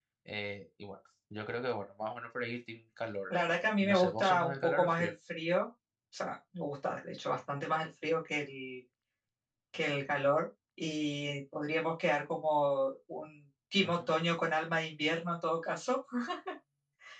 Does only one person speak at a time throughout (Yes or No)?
No